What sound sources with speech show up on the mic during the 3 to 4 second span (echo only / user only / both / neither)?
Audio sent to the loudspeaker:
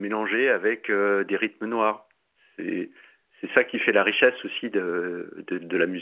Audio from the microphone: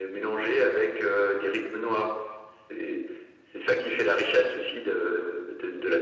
echo only